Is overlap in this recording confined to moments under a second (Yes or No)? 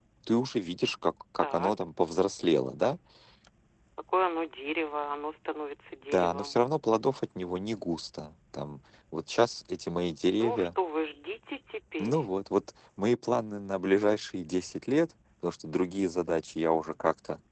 Yes